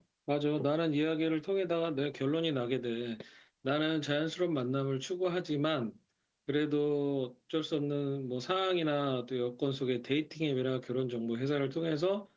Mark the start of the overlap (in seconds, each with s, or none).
none